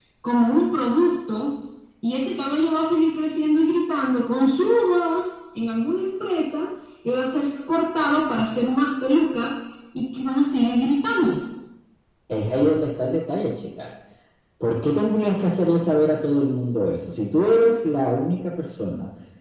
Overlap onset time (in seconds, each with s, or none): none